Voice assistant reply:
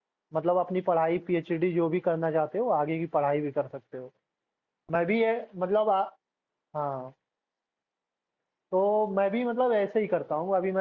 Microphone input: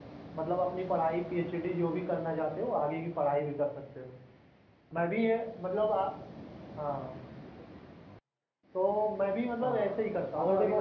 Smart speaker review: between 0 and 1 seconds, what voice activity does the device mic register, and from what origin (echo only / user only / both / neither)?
echo only